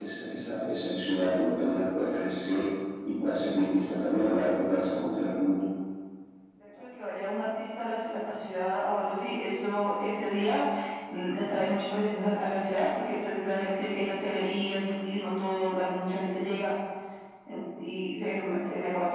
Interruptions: none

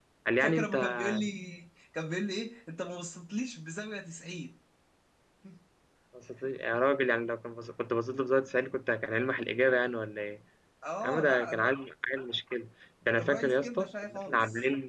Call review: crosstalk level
present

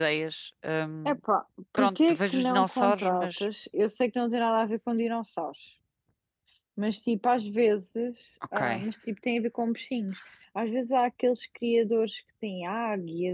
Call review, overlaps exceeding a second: present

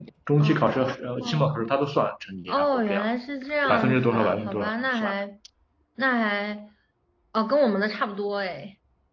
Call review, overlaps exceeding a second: present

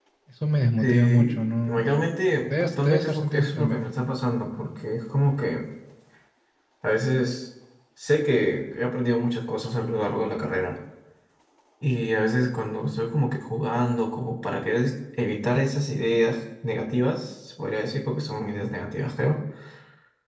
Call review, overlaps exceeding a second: present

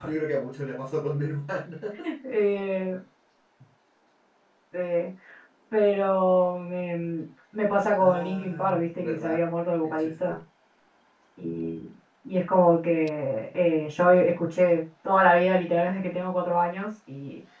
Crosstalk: present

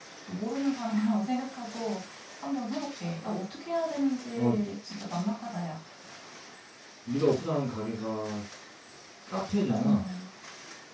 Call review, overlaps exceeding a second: none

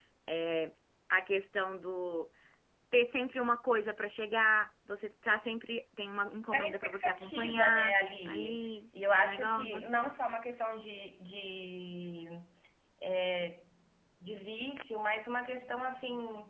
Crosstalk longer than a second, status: present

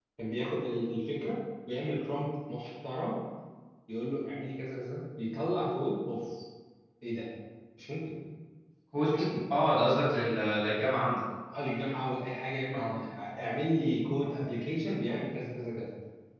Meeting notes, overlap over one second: none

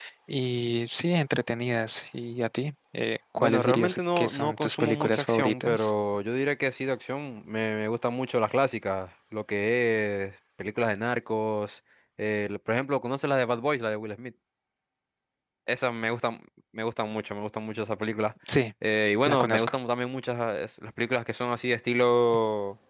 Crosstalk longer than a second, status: present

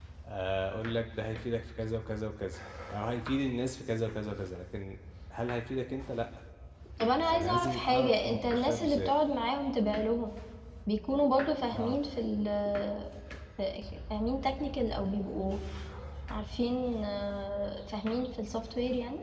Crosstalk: present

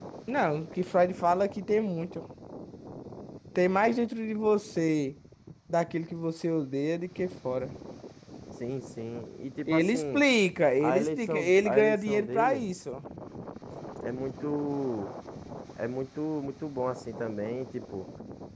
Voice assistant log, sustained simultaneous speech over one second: present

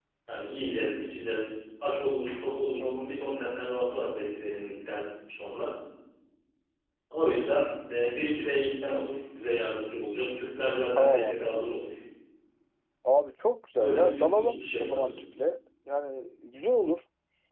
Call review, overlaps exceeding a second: present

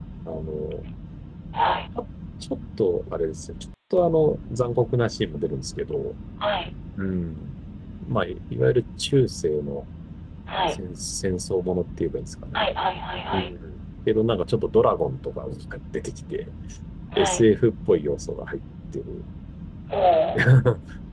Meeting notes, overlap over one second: none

